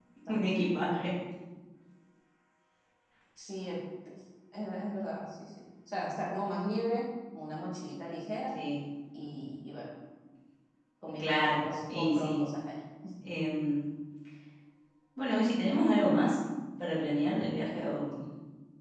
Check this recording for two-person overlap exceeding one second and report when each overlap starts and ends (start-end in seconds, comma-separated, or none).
11.2-12.4